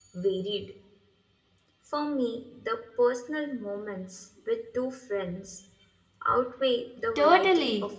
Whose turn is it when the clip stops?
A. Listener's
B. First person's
A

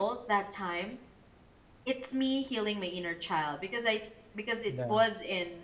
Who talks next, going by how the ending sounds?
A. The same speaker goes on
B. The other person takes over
A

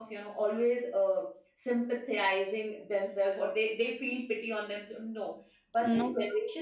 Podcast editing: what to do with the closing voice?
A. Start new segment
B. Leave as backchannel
B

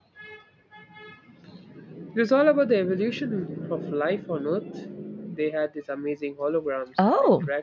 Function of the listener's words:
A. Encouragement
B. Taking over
B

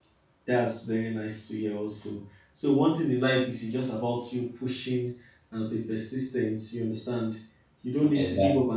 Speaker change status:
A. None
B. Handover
A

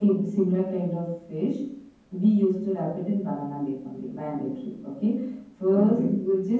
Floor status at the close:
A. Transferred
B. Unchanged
B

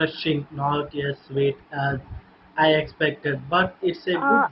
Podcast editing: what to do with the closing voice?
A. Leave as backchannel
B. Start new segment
B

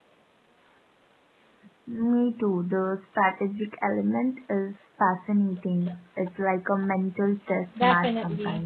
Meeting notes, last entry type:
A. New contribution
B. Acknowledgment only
A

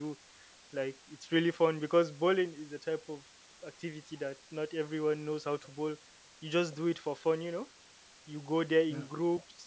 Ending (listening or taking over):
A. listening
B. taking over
A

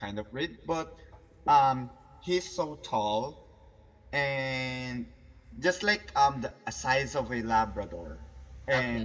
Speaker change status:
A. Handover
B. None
B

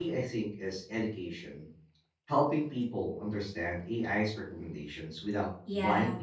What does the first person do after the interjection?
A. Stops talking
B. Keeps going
A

